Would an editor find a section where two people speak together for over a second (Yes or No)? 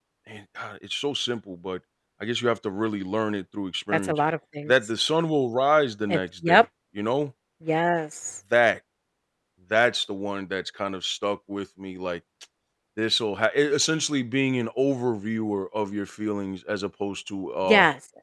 No